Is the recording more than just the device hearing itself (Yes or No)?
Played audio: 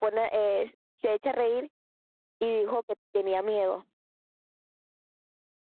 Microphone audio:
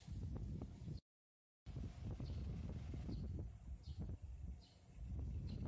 No